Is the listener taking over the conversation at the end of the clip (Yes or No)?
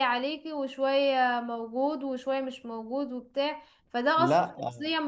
No